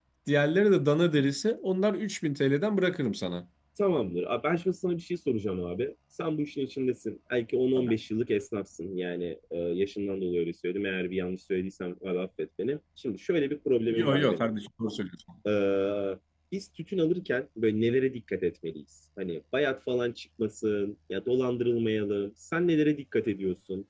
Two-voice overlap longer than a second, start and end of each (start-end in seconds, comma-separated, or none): none